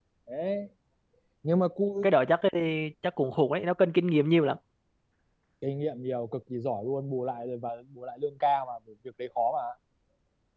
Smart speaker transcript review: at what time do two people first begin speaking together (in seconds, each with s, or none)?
none